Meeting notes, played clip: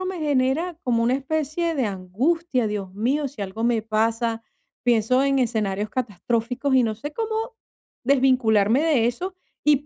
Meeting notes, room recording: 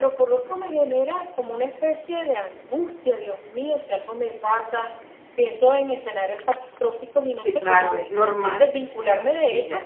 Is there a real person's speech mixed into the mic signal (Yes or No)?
Yes